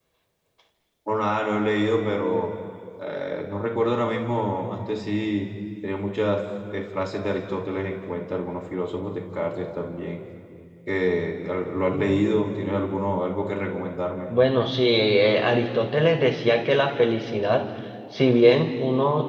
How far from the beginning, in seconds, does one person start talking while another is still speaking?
none

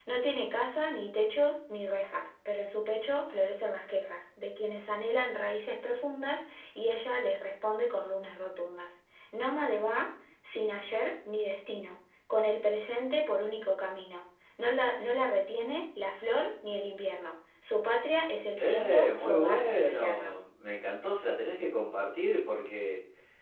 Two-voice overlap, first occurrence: 19 s

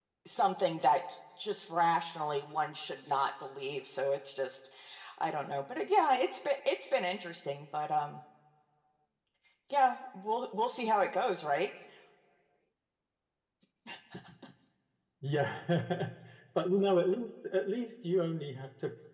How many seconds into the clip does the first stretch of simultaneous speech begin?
none

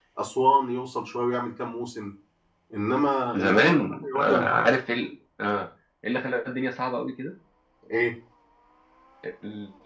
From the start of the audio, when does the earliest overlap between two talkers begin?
3 s

